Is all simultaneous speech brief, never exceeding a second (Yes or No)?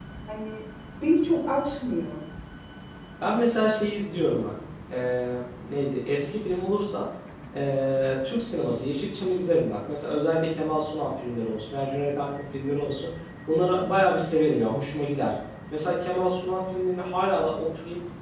Yes